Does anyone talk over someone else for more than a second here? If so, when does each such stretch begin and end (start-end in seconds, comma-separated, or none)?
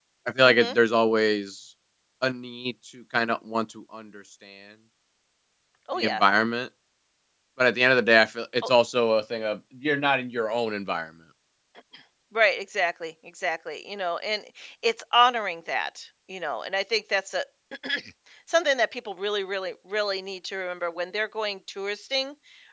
none